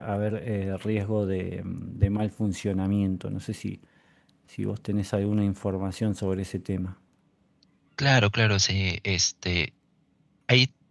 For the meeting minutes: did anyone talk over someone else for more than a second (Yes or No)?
No